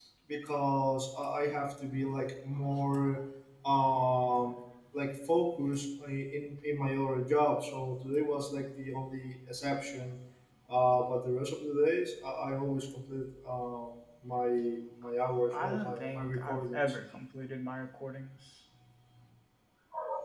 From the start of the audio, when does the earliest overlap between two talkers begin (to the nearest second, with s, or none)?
16 s